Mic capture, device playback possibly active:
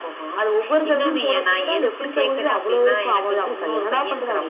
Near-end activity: none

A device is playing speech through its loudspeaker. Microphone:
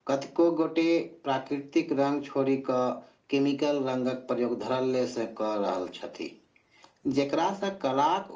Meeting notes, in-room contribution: none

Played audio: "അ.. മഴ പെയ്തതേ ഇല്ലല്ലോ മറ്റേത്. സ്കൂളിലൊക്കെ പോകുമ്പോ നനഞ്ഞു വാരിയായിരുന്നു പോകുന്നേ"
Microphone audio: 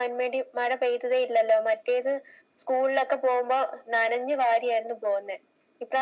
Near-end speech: none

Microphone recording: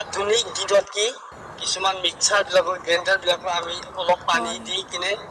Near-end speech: present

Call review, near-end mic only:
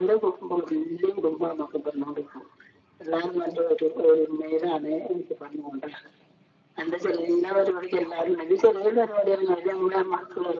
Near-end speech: none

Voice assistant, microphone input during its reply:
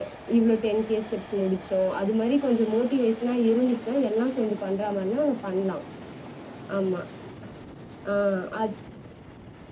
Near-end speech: none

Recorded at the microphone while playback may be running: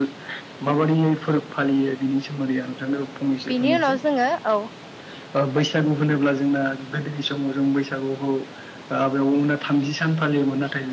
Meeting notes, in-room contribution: present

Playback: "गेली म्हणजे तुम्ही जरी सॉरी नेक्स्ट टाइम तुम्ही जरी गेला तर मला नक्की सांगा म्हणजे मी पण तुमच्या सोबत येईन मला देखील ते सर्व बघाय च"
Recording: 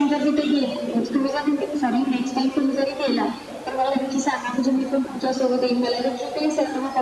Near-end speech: none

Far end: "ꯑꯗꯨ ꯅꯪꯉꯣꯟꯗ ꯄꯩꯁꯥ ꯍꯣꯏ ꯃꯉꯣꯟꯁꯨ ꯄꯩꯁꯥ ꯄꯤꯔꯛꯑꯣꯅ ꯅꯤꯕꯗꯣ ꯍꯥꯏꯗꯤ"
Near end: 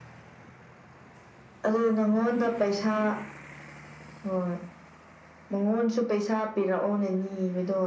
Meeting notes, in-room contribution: none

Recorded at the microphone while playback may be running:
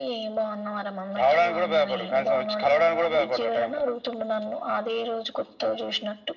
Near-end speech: none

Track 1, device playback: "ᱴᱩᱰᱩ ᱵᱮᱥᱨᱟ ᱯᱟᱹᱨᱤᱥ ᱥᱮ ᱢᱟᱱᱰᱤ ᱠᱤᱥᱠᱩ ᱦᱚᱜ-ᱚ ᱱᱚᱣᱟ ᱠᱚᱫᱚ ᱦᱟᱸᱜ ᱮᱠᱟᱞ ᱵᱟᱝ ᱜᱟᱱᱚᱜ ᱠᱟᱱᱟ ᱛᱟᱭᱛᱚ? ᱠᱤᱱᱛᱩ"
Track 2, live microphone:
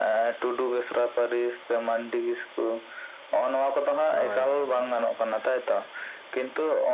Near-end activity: present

